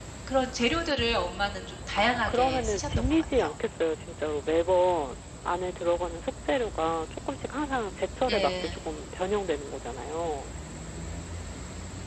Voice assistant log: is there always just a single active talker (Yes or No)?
No